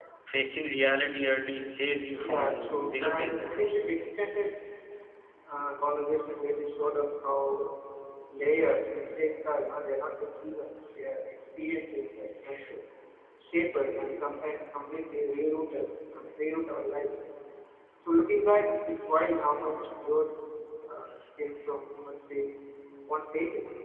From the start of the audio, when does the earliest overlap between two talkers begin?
2.2 s

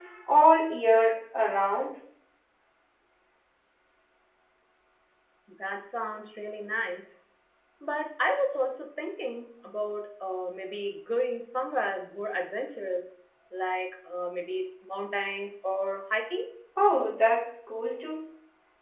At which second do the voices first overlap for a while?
none

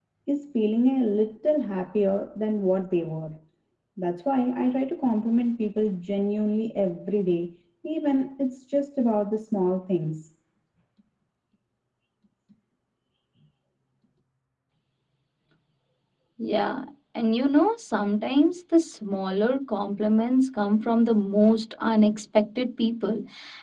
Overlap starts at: none

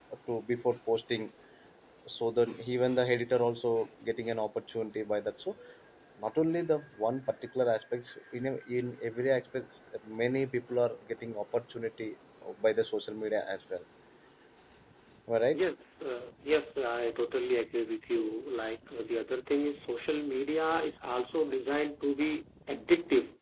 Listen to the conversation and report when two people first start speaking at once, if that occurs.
none

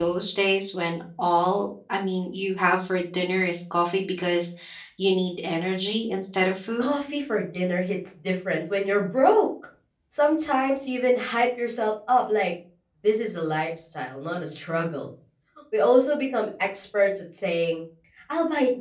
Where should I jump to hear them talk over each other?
none

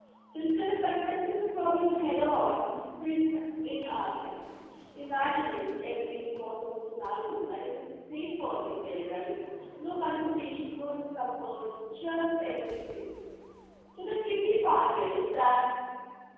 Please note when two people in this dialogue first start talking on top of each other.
none

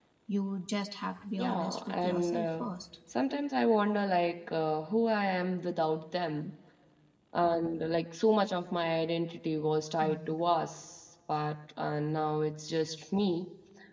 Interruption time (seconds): 1.4 s

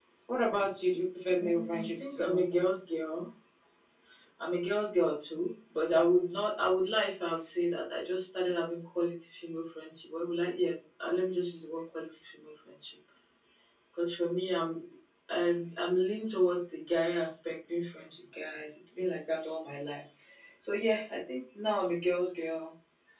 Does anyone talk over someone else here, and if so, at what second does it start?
1.4 s

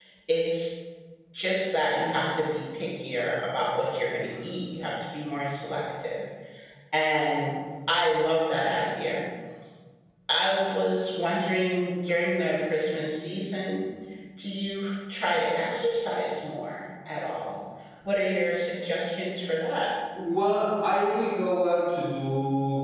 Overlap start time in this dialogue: none

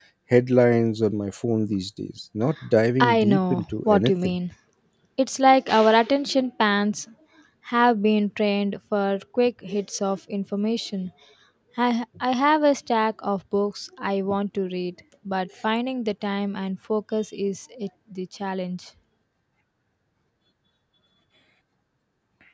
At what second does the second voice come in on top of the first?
3.0 s

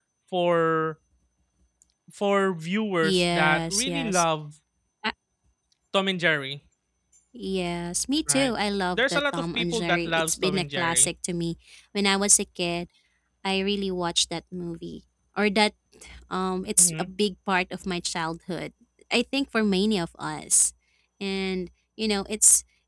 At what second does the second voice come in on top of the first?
3.0 s

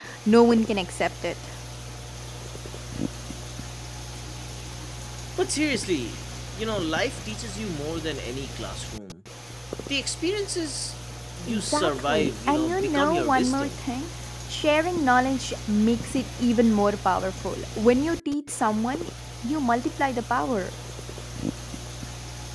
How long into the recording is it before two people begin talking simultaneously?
11.5 s

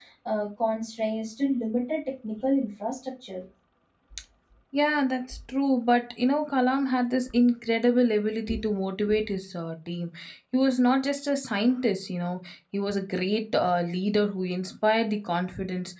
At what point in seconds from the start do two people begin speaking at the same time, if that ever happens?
none

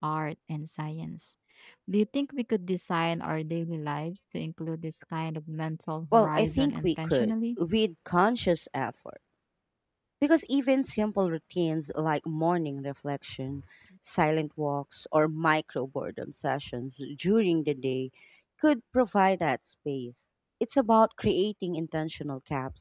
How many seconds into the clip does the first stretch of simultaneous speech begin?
6.1 s

